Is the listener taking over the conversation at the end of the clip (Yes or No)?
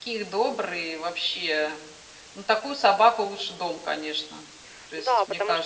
Yes